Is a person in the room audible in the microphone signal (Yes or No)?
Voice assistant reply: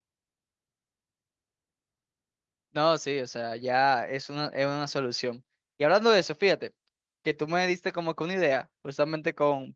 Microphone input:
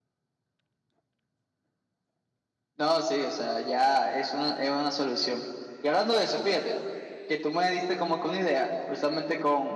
No